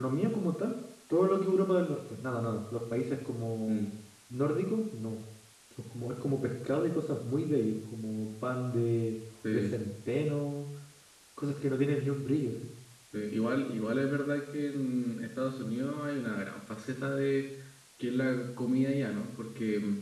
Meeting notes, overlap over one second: none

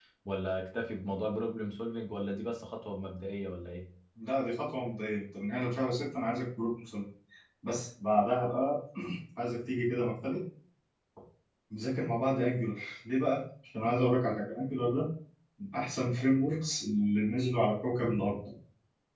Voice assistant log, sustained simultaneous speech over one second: none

